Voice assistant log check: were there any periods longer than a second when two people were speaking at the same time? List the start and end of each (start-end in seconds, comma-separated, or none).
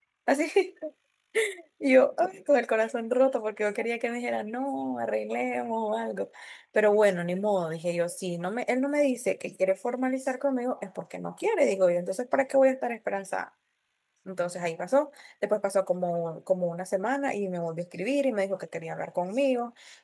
none